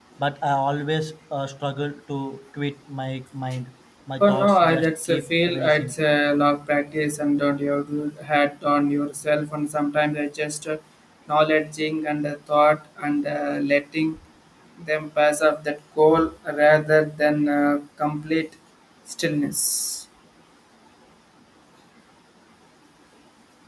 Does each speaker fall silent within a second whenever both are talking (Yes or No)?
No